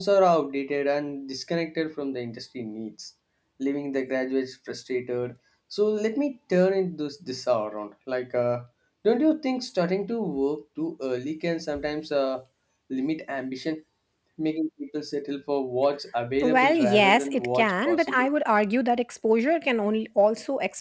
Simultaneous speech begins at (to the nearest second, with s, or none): 16 s